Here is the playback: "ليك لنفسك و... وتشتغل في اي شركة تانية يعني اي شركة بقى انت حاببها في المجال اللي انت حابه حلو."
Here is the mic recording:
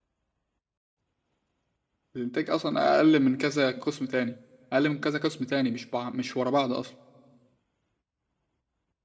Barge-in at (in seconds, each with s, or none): 2.2 s